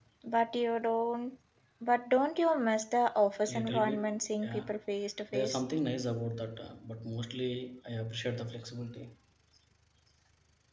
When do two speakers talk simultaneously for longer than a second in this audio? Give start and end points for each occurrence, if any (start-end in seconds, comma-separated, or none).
3.5-4.7